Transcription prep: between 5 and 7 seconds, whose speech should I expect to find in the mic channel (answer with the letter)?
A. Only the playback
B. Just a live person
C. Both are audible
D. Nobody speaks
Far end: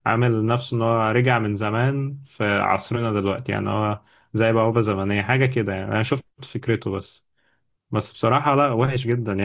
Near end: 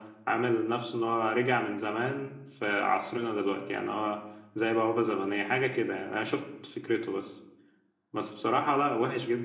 A